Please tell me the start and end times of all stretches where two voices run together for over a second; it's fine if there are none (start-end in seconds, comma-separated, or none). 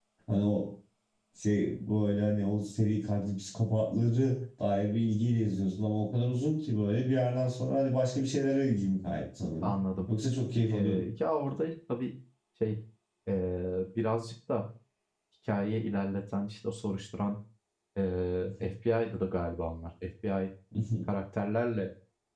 none